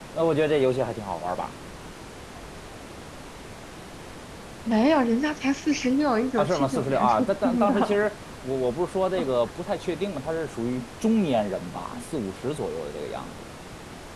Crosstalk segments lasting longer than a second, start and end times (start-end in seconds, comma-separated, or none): 6.4-7.7